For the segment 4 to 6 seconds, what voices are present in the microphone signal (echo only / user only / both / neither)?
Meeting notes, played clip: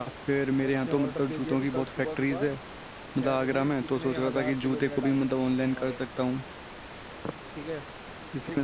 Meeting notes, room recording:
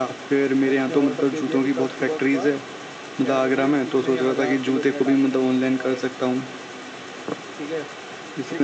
echo only